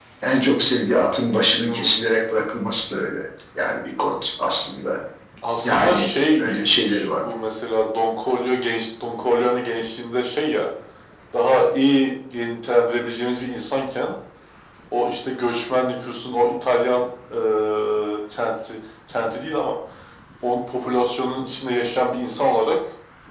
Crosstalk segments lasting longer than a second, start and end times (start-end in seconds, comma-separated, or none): 5.6-7.0